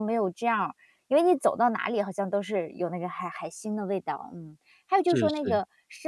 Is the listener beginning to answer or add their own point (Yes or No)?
No